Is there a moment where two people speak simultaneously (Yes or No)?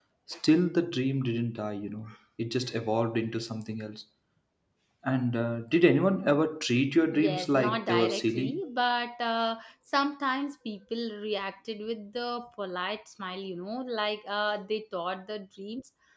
Yes